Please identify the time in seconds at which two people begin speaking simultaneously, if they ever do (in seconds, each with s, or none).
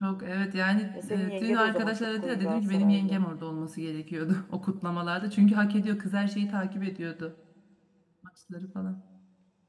1.0 s